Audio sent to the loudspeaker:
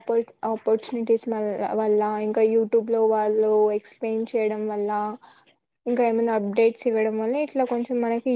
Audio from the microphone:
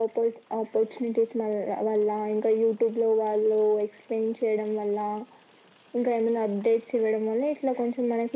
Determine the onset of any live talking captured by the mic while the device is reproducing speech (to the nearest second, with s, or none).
none